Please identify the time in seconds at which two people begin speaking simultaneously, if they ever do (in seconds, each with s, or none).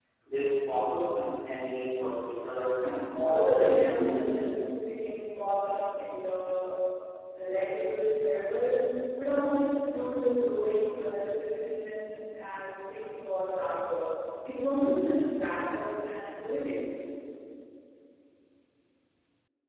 2.8 s